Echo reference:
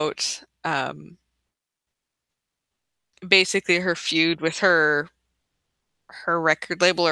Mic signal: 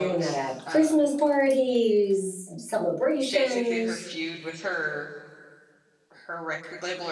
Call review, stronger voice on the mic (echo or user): user